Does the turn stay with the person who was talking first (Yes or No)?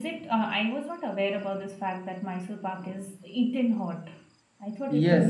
No